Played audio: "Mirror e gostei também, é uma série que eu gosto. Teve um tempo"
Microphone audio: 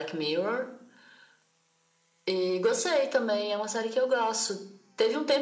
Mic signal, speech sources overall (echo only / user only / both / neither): echo only